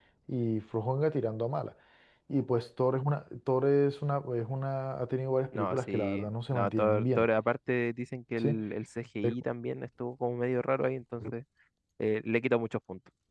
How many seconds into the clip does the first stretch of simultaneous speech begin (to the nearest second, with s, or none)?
6 s